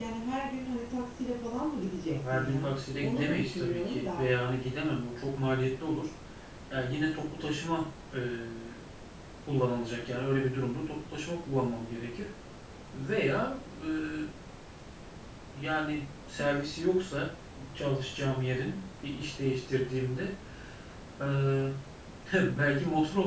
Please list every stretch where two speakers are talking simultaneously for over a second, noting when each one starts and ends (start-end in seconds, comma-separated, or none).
2.0-4.3